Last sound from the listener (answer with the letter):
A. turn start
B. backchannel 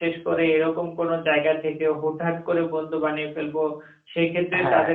B